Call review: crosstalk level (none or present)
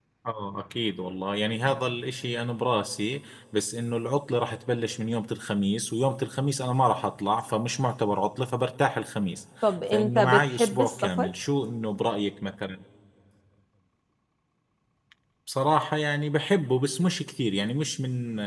present